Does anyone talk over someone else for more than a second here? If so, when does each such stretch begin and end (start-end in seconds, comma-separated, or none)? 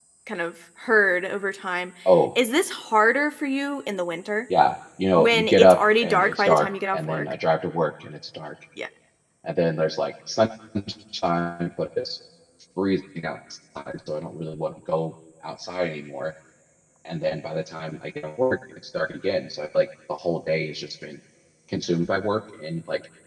5.2-7.3